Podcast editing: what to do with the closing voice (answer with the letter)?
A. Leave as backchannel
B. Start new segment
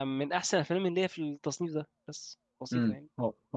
B